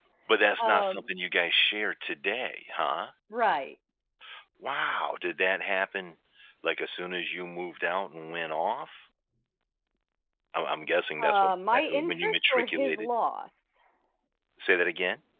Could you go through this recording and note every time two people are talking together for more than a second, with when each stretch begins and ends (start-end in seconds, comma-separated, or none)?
11.2-13.1